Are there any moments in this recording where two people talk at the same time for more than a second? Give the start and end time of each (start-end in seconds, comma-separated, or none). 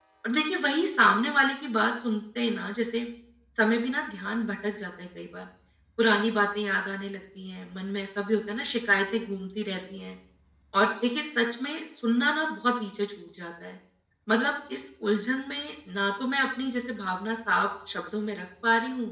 none